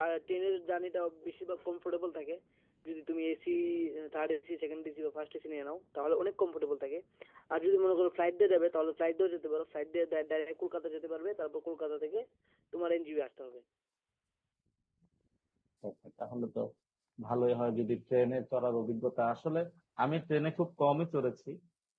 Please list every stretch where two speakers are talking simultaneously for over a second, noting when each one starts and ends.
none

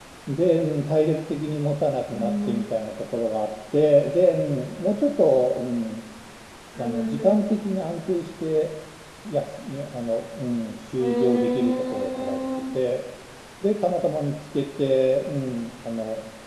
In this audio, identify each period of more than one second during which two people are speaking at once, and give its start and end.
11.0-12.4

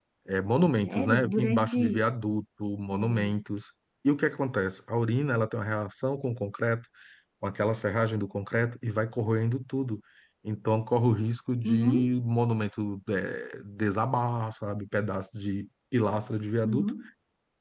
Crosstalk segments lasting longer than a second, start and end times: 0.8-2.1

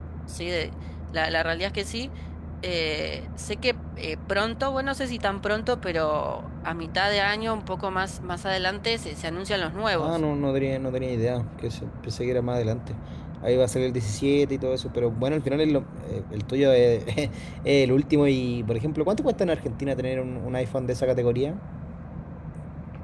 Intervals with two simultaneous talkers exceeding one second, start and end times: none

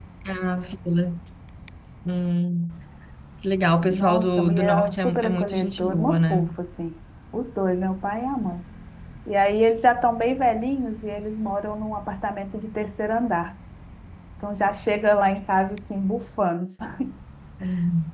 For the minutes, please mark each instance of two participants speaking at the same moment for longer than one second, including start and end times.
3.9-6.5

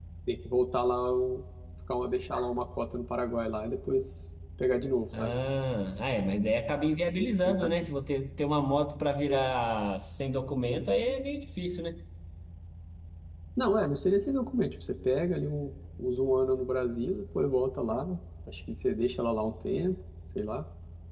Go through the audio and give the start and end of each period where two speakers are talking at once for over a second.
none

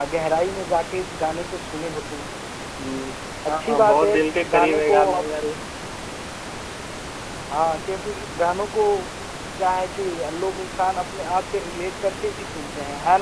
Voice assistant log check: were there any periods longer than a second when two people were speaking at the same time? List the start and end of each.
3.5-5.2

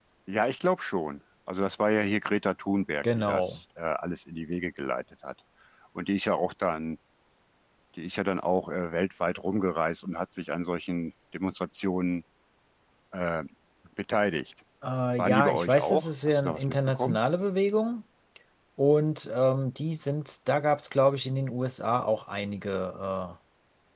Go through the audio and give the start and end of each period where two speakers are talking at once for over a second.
15.2-17.2

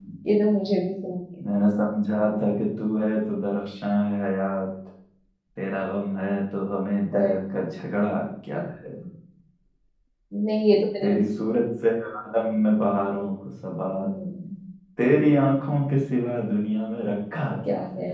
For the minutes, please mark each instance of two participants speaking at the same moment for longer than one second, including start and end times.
none

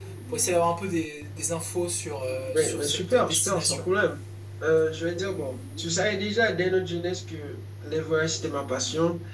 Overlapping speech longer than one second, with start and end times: 2.5-3.9

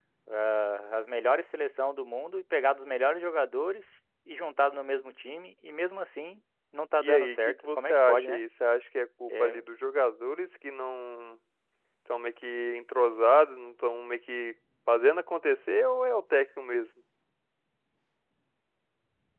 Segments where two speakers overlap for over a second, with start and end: 7.0-8.4

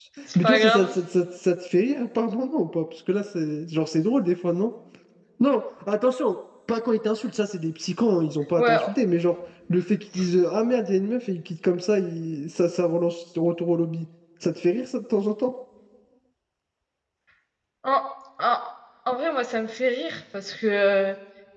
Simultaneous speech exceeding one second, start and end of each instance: none

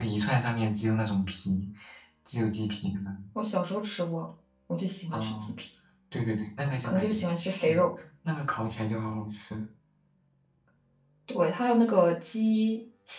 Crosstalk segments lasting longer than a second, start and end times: none

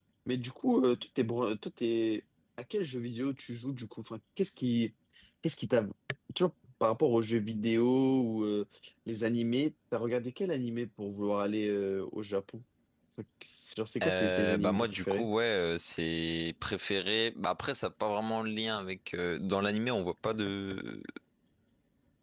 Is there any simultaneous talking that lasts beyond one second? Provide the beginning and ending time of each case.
14.0-15.3

